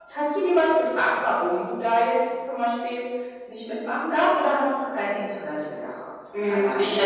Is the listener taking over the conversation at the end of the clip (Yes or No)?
Yes